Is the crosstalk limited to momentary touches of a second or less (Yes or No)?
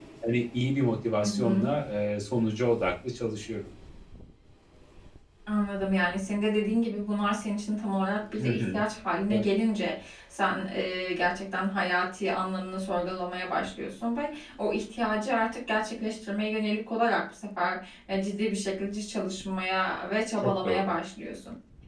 Yes